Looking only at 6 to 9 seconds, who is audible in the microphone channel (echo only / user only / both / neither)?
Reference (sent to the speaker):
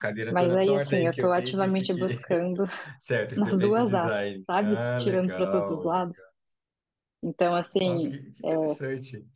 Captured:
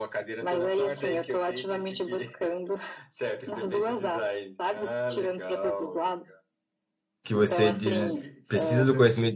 both